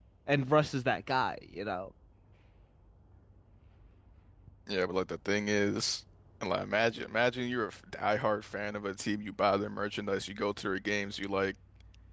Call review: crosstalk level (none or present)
none